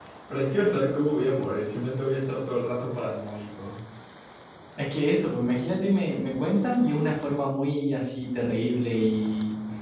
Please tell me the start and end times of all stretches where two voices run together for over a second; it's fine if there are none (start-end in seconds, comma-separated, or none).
none